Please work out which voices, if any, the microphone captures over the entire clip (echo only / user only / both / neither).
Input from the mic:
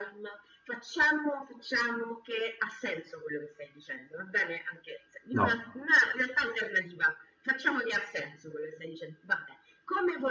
both